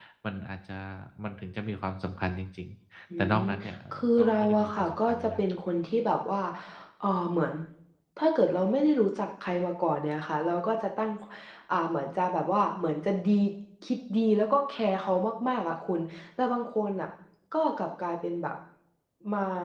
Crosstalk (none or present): present